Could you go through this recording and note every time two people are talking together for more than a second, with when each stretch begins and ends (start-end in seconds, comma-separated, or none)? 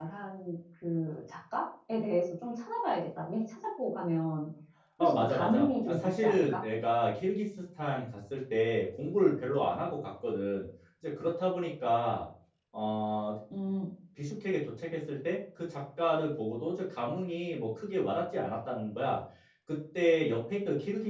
5.0-6.5